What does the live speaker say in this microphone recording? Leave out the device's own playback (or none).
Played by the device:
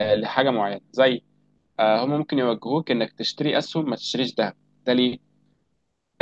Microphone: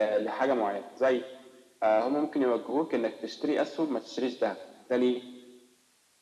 none